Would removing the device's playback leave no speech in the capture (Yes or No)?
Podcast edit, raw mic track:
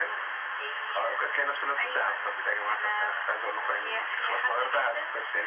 Yes